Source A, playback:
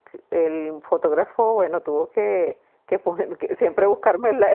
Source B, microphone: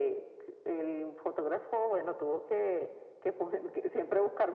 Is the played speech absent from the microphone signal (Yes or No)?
No